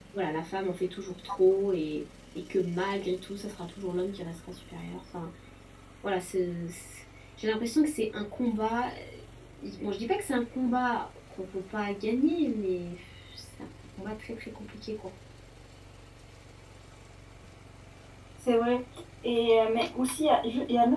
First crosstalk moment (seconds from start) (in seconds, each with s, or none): none